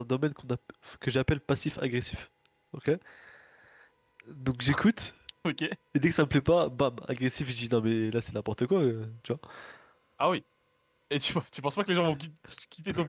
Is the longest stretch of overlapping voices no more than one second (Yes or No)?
Yes